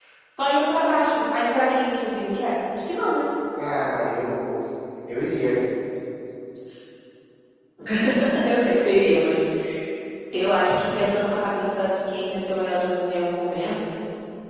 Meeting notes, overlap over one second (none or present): none